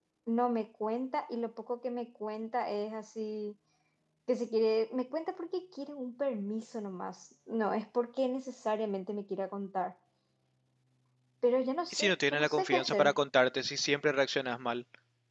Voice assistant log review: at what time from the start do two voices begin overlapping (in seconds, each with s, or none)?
11.9 s